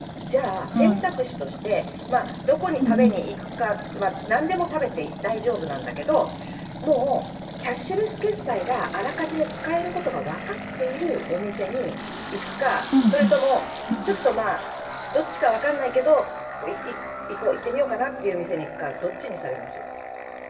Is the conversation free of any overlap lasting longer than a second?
Yes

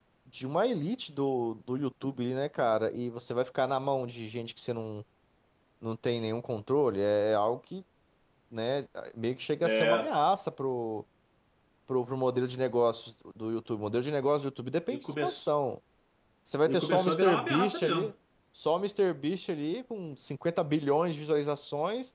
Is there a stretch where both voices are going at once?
Yes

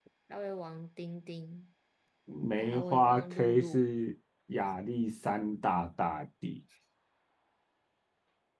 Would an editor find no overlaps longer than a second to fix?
No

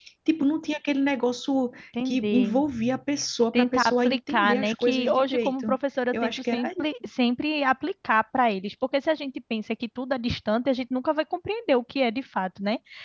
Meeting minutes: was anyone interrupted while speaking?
Yes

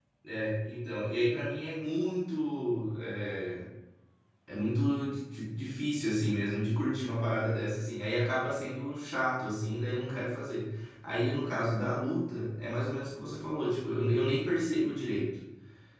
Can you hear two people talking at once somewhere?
No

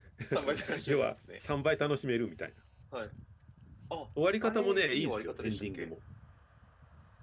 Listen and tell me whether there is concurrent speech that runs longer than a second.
Yes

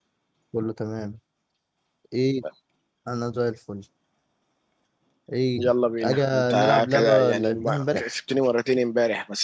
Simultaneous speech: Yes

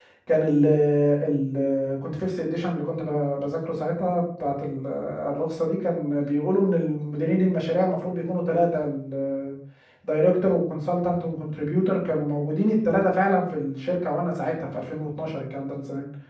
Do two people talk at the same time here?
No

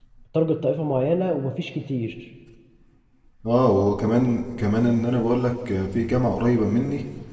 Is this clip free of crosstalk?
Yes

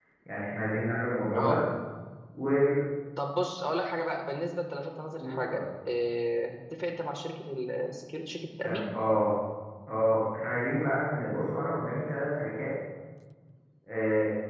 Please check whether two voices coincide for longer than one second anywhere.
No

